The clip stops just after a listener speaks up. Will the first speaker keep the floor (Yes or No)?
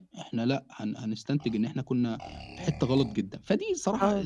Yes